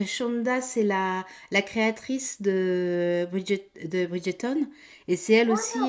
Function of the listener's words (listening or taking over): listening